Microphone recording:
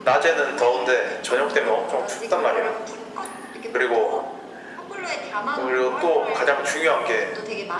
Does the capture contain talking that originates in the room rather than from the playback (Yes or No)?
Yes